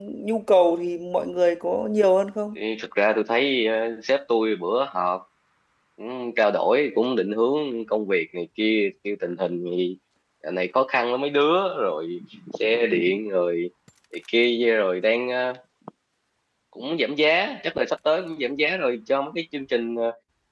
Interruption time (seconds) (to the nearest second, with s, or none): none